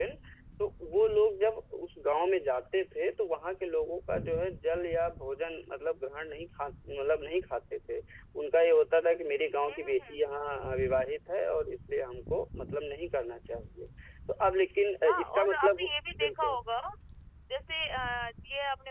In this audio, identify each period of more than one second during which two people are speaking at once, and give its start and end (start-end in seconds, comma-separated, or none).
15.1-16.6